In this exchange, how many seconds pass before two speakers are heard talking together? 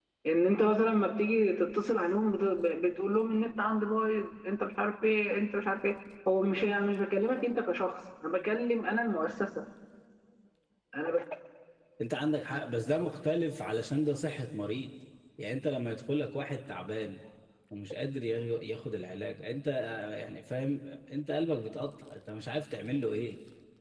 none

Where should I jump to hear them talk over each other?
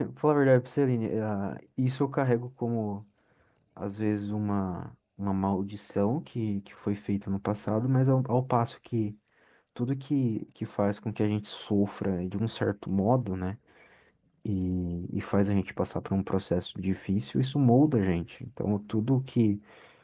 none

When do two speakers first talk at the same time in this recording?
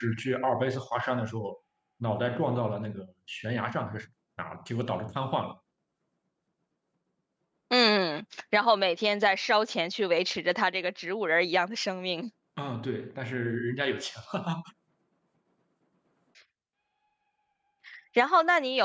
none

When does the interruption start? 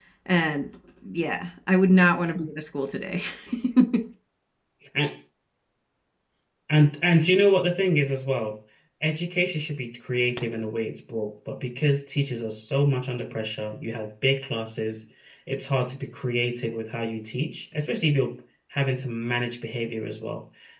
none

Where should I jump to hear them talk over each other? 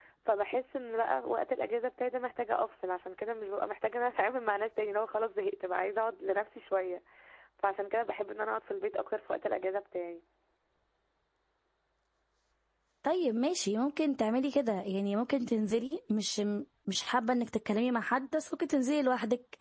none

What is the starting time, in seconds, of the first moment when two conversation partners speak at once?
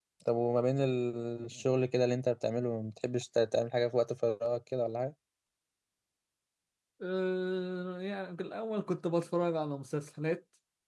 none

